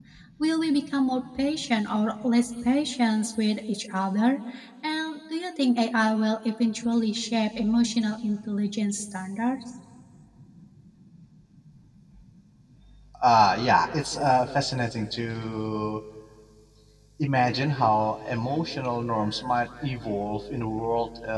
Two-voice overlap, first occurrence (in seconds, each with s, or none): none